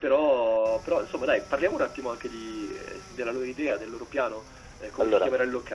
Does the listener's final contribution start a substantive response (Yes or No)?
No